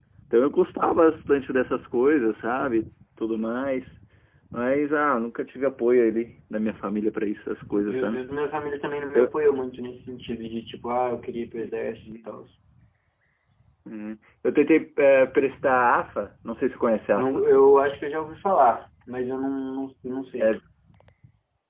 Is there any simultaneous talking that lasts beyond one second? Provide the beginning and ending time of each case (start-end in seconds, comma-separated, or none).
none